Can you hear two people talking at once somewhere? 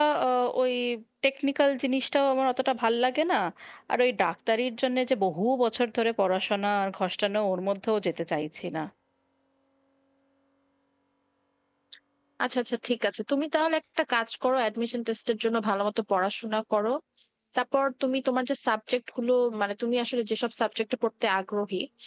No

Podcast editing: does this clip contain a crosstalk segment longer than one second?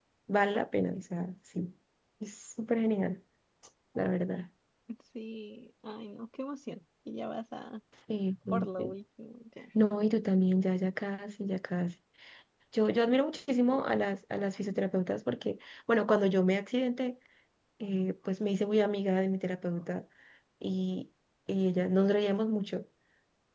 No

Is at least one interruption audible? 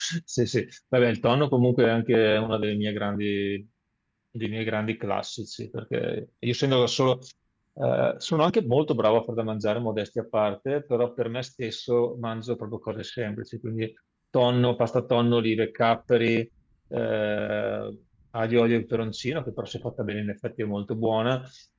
No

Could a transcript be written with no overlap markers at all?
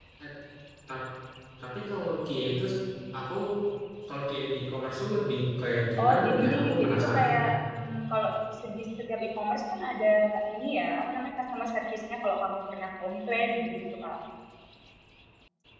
No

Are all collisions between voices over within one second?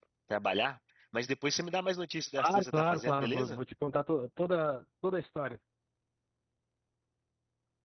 No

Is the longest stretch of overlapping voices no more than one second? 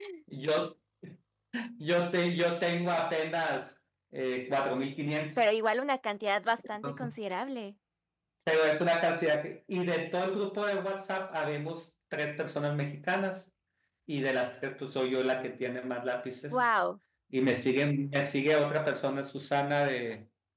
Yes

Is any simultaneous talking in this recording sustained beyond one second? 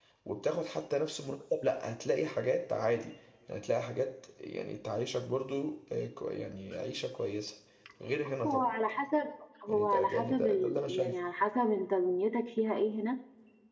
Yes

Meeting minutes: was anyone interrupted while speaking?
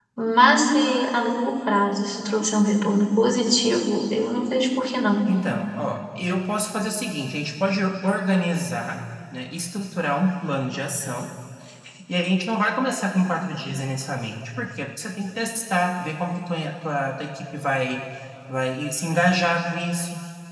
No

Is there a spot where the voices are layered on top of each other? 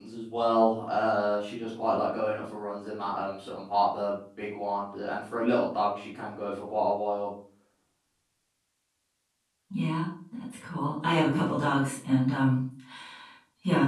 No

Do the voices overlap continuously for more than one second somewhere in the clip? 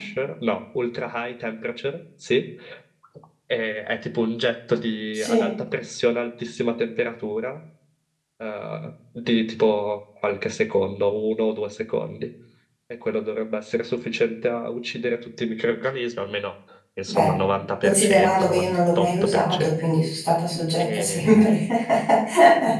Yes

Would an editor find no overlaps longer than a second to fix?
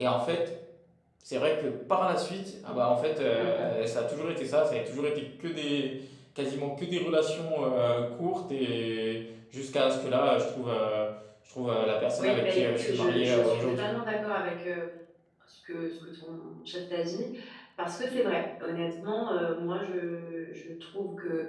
No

